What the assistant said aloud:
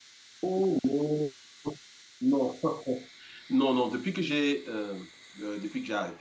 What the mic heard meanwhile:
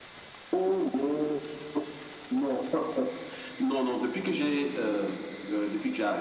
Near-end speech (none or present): none